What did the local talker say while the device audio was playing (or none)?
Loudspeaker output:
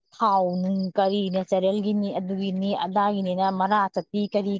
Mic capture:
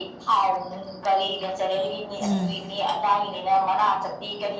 ꯎꯝ